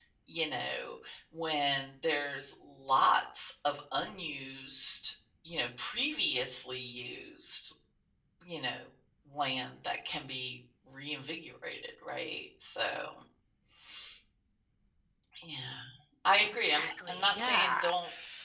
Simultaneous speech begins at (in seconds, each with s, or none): 16.4 s